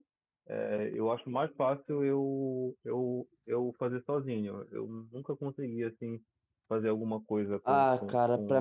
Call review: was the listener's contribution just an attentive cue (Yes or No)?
No